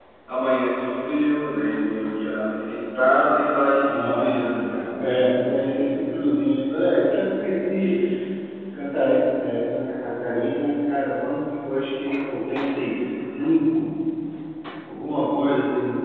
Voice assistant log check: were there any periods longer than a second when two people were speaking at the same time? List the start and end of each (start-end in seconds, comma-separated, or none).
3.8-5.3